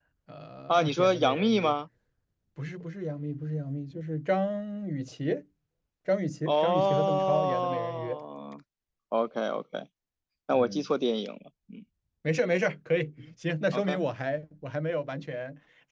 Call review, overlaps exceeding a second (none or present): present